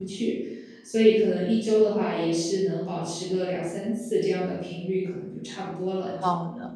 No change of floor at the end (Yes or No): No